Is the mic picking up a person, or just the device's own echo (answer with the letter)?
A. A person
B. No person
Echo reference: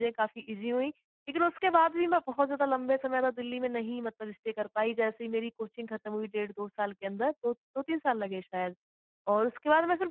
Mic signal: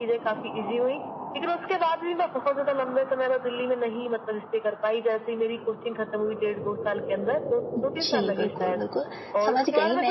A